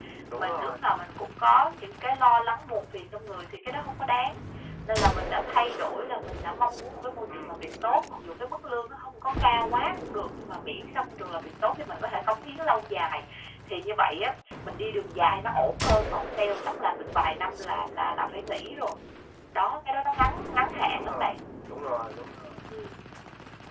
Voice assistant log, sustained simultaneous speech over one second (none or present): none